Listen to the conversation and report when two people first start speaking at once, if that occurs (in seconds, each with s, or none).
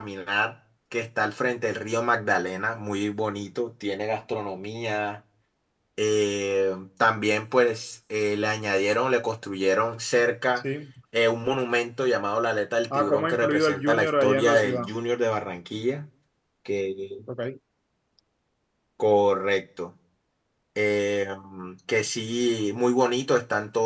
12.8 s